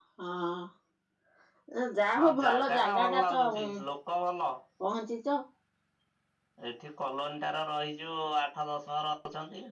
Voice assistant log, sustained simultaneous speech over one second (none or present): present